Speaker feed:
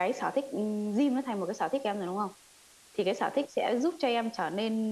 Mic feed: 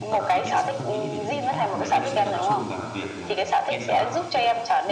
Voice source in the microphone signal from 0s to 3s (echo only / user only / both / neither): both